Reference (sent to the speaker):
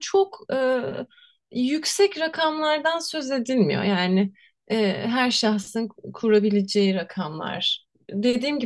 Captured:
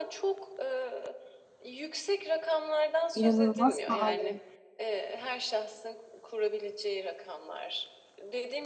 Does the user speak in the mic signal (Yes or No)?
Yes